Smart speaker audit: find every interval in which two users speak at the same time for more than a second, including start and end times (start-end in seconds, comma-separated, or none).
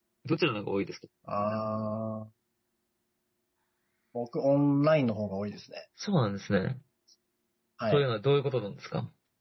none